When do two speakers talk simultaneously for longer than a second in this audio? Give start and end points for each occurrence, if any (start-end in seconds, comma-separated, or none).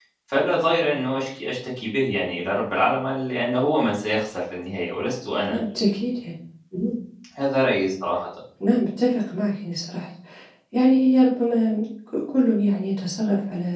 none